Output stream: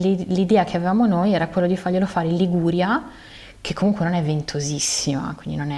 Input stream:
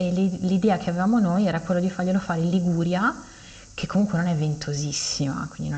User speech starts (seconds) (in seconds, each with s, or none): none